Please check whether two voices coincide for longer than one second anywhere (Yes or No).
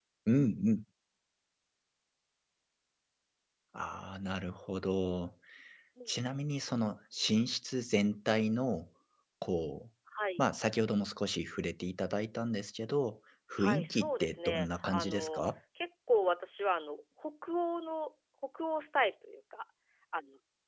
Yes